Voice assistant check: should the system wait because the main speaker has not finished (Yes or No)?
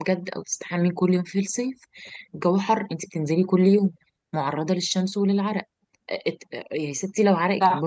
Yes